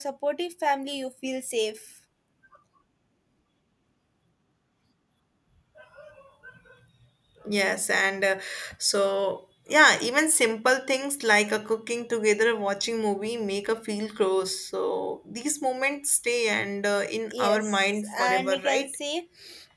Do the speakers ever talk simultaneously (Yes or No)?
Yes